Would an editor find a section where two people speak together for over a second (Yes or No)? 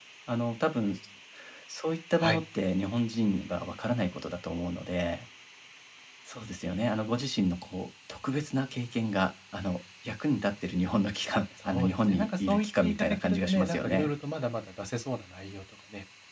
Yes